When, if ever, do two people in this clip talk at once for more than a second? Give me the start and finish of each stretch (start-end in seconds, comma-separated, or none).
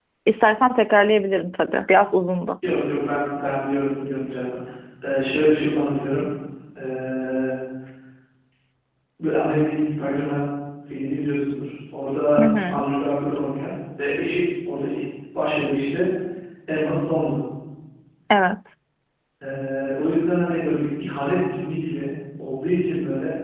none